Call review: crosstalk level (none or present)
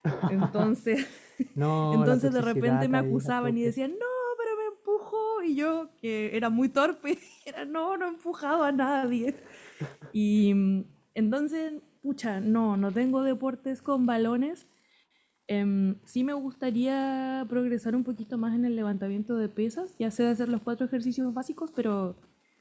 present